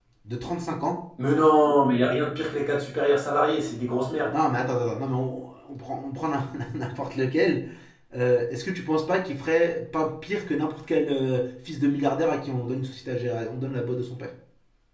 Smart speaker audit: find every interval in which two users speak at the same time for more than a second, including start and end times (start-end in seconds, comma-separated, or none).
none